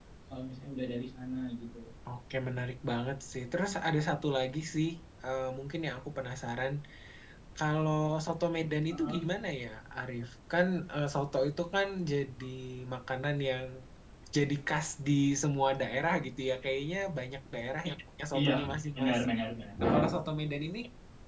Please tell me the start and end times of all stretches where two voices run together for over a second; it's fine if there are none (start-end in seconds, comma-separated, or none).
none